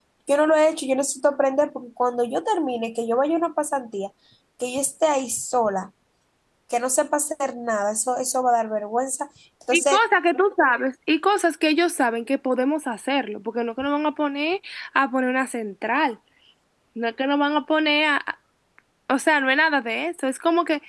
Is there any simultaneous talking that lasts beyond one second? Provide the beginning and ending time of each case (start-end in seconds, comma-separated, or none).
none